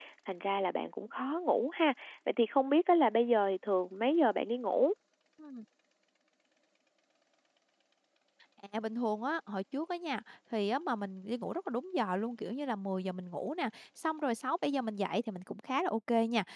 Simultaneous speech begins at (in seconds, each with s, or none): none